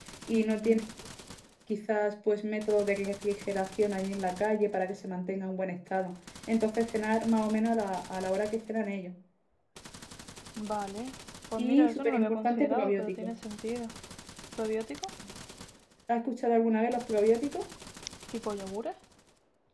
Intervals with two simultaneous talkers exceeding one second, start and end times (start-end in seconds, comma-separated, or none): 11.6-13.3